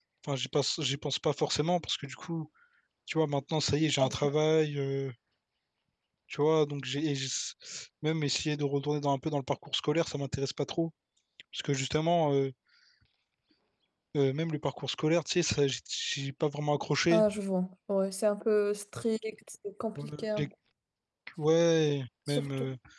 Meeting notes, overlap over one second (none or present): none